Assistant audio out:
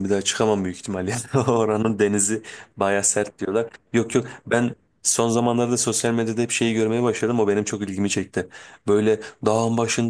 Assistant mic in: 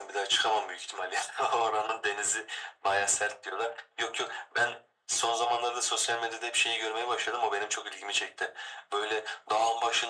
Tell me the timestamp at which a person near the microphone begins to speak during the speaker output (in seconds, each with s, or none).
none